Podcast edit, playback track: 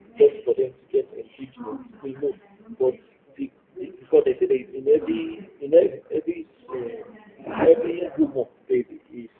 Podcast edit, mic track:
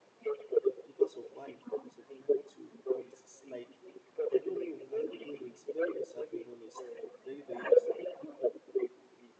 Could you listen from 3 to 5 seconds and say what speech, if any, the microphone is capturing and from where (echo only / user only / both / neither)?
both